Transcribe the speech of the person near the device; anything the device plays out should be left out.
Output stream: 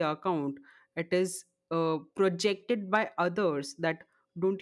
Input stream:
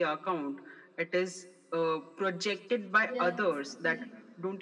yes, yes, definitely.

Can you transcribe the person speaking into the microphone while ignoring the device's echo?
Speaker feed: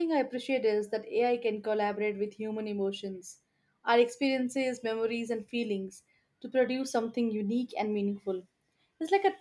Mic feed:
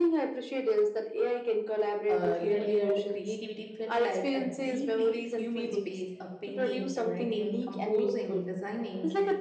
Uh, earlier, the creativity felt like a deeply human space of painting, writing, composing, designing.

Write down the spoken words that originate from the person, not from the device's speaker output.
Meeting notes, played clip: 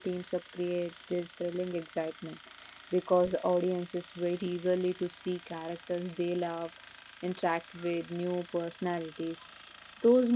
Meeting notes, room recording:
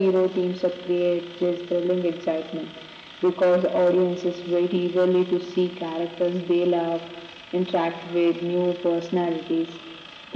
none

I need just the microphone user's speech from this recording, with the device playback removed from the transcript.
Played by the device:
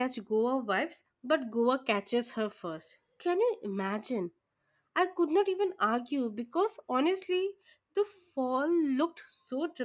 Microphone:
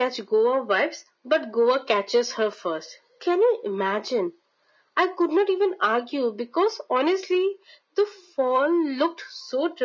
none

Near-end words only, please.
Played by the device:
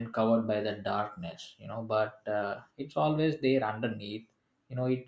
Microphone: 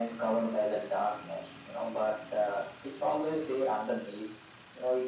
none

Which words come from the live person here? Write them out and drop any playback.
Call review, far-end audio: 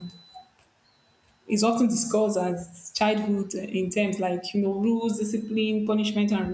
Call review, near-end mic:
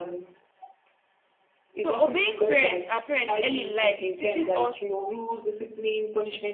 So obeying parents and parents early in life, it teaches us

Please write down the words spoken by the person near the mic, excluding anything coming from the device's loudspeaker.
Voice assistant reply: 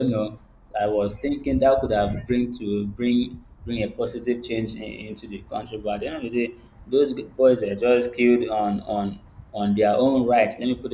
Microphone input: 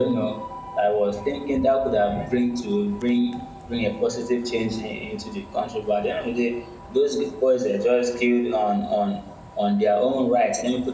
none

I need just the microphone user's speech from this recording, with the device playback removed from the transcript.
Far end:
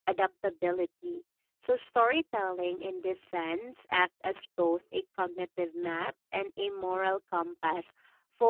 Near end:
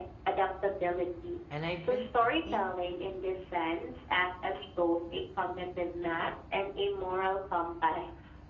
And I've been thinking

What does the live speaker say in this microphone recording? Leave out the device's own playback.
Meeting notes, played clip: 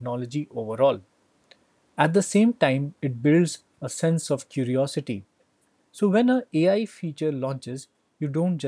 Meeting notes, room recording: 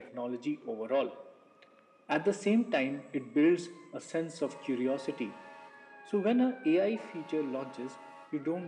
none

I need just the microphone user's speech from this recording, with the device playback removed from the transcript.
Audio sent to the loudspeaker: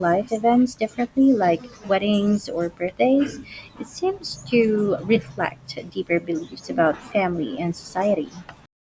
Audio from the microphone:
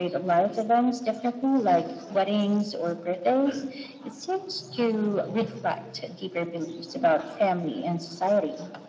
none

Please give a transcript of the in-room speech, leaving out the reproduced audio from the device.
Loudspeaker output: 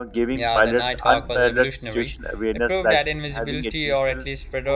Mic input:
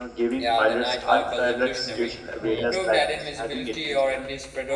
Yeah.

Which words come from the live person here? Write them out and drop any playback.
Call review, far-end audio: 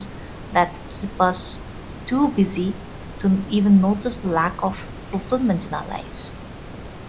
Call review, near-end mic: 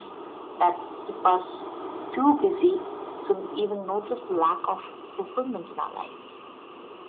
none

